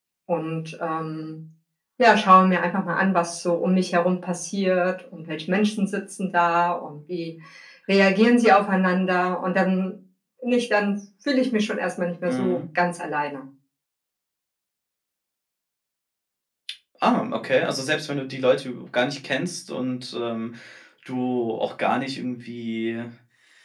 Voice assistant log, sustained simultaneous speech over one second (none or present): none